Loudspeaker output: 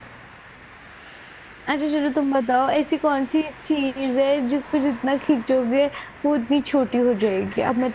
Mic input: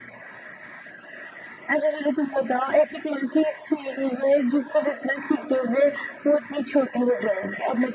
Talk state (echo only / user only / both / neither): echo only